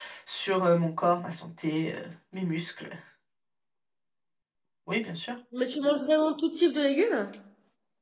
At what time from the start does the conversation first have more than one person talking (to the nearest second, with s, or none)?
none